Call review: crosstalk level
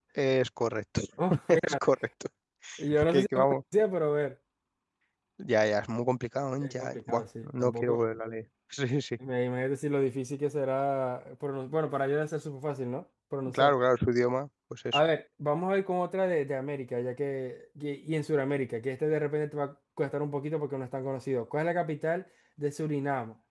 present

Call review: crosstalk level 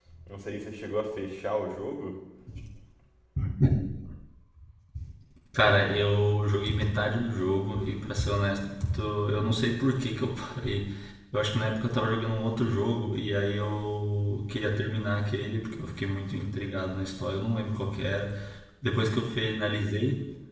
none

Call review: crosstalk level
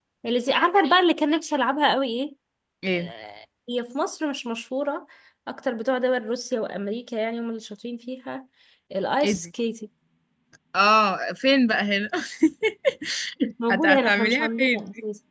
present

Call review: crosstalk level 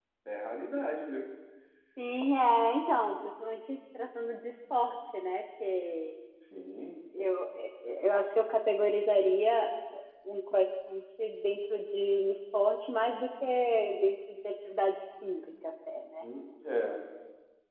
none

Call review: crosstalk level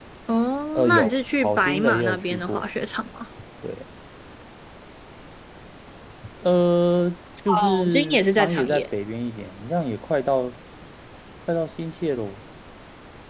present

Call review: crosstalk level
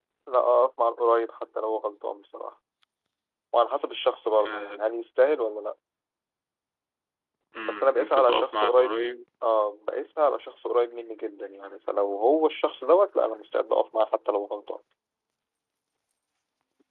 present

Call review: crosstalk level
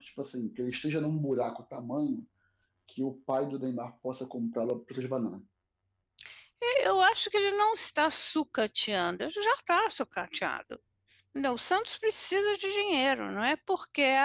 none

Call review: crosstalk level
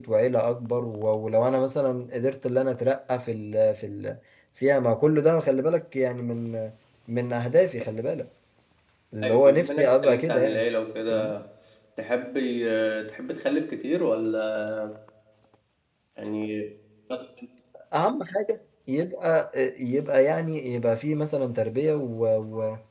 present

